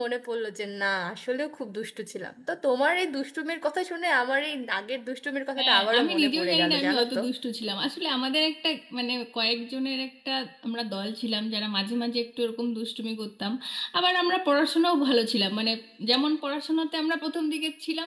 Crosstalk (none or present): present